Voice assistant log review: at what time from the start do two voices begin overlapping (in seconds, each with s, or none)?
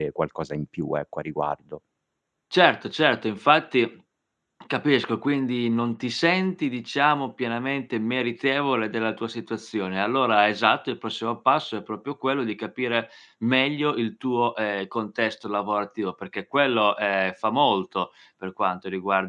none